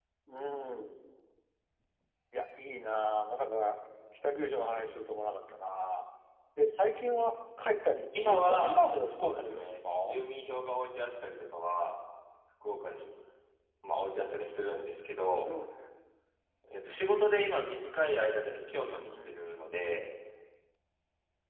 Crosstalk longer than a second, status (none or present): present